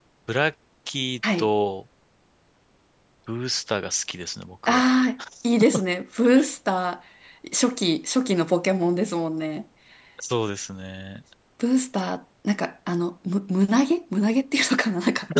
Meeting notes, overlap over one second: none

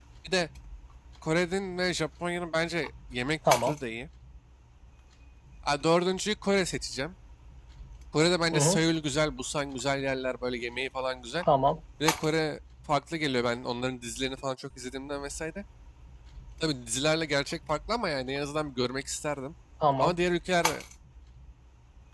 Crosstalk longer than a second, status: none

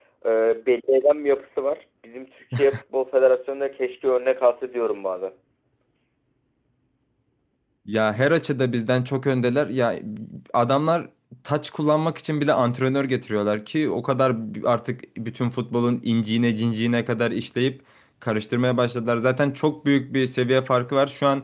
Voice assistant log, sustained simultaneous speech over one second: none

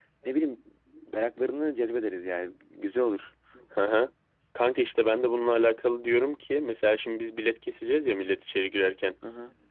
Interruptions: none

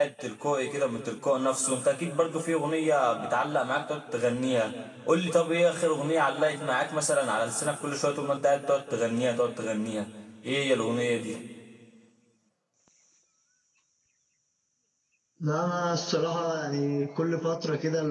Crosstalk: none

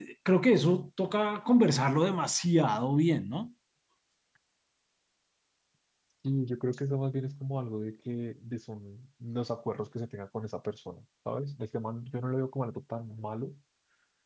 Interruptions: none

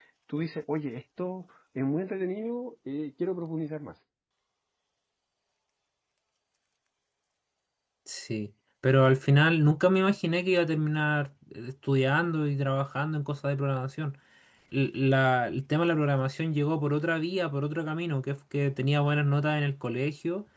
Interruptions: none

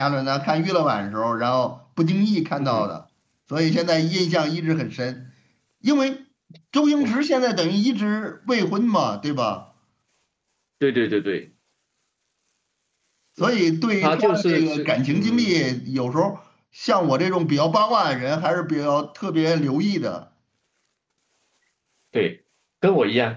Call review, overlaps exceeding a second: present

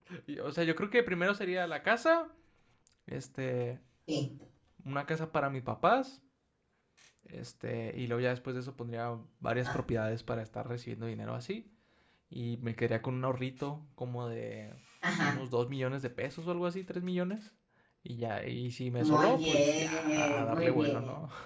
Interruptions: present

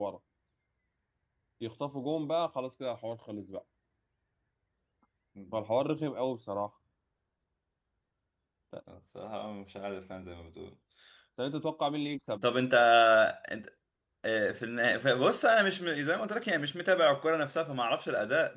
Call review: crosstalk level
none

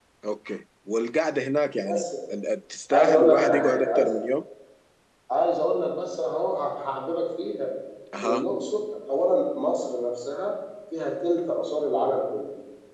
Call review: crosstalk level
present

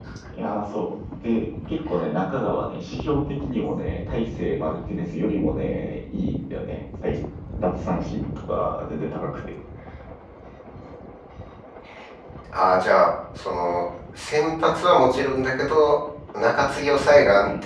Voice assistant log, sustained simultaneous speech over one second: none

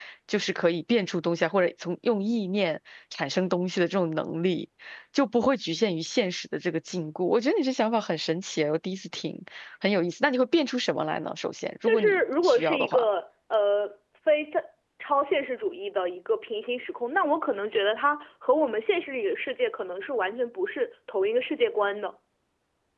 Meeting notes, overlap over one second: present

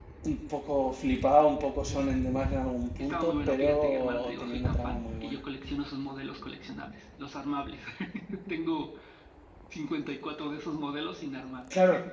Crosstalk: present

